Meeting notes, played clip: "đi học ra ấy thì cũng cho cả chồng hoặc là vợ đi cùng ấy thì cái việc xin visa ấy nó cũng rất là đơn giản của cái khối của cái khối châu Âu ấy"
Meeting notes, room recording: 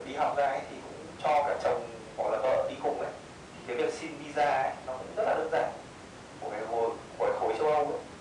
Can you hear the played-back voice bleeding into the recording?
Yes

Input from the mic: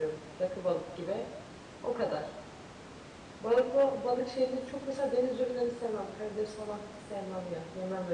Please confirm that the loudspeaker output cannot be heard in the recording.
Yes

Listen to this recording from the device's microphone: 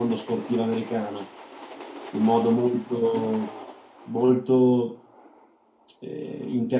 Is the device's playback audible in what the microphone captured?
Yes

